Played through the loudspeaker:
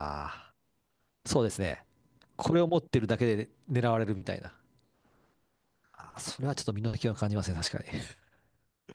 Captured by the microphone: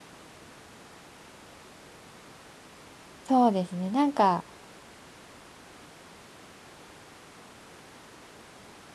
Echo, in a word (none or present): none